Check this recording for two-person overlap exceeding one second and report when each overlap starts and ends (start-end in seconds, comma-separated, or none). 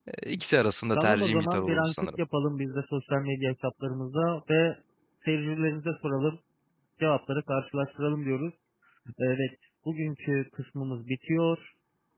1.0-2.2